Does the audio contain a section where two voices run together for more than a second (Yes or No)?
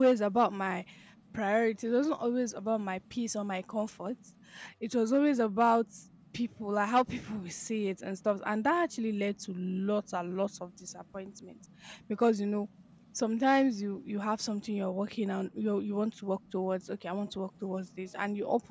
No